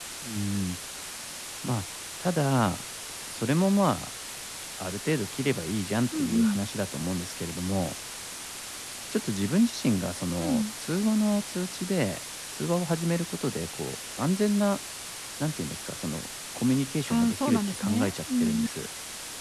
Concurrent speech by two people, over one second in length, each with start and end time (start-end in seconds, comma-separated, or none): 17.1-18.7